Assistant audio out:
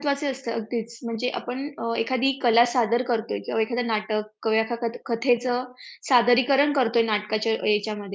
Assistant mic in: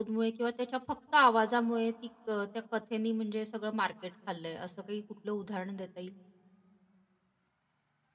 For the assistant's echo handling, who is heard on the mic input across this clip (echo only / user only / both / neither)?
user only